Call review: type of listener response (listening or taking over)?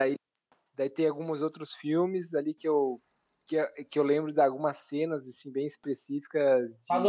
taking over